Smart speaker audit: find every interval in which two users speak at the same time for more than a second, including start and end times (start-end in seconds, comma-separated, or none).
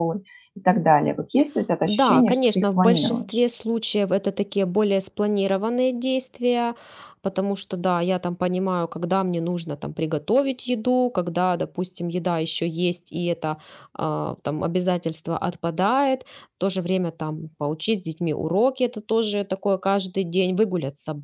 1.8-3.4